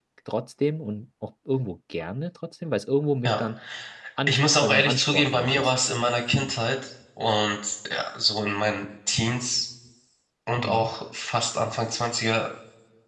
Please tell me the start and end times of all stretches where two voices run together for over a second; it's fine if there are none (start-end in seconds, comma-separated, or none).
4.3-5.7